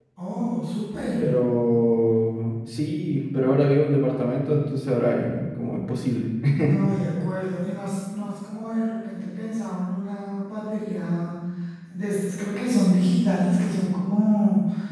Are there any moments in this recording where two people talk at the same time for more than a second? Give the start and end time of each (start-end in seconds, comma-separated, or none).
none